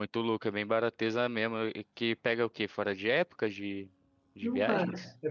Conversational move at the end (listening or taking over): taking over